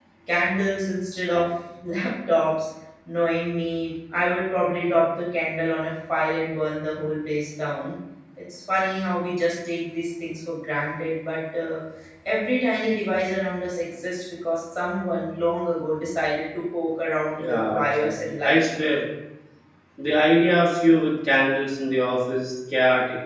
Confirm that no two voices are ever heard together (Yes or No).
No